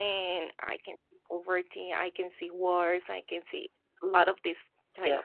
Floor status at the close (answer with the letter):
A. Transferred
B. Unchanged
B